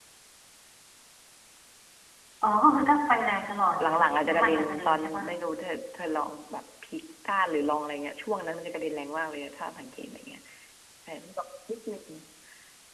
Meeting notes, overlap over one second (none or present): present